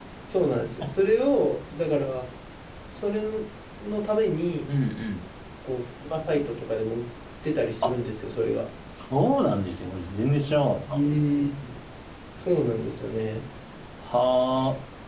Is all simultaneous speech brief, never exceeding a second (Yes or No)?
Yes